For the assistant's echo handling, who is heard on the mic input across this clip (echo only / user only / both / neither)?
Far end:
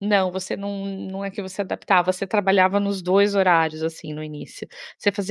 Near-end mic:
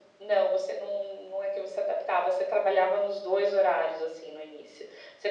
echo only